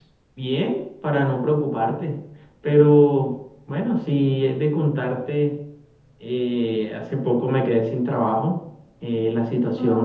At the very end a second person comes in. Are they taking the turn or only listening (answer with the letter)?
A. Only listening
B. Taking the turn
A